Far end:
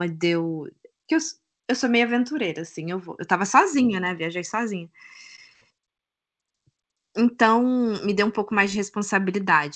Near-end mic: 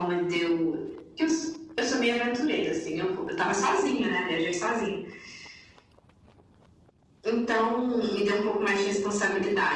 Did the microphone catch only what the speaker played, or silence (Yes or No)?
Yes